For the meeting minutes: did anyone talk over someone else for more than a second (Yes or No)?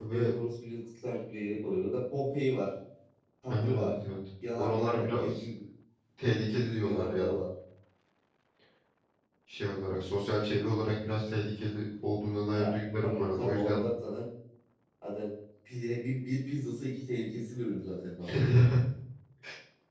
Yes